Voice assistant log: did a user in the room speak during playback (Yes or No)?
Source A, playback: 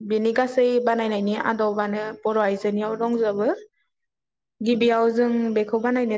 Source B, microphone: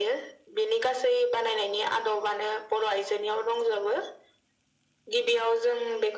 No